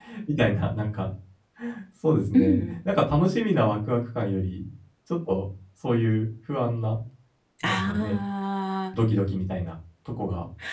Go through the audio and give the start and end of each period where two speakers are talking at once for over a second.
none

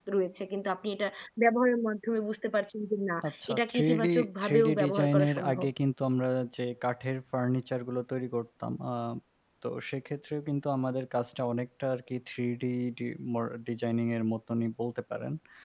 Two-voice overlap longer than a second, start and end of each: 3.3-5.7

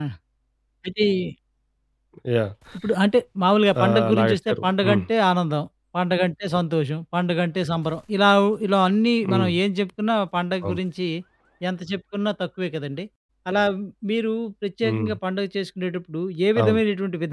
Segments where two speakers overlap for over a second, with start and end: 3.8-5.0

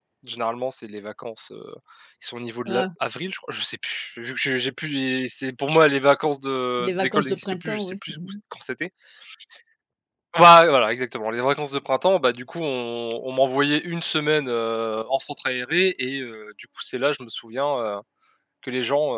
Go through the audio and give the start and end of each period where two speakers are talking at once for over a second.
6.8-8.3

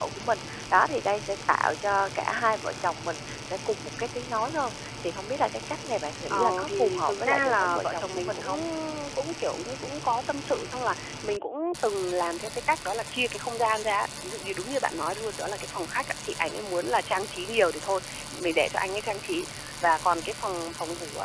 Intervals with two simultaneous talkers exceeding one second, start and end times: 6.3-8.5

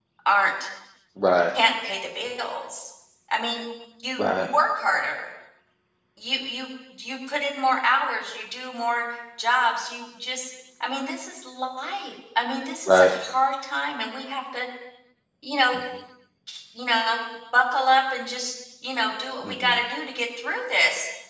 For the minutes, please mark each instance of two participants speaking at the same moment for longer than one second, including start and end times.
none

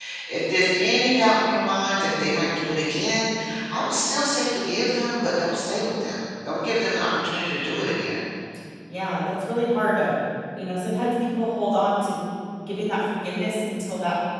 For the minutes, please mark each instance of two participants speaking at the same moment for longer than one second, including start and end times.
none

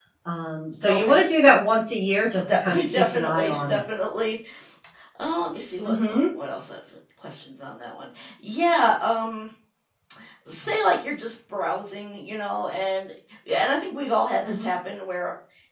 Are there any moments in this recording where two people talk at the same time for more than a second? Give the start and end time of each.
2.3-3.8

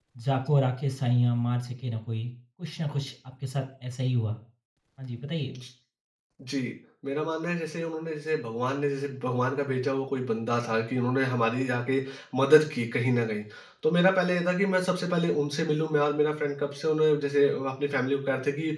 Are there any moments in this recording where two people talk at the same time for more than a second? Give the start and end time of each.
none

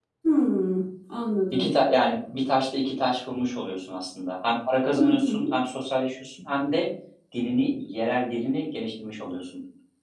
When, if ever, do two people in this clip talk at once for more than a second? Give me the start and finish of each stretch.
none

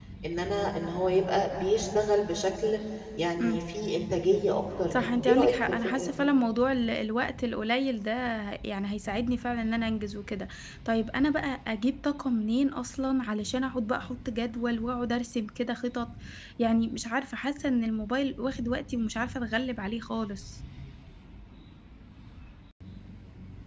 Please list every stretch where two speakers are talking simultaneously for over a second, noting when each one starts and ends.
4.9-6.2

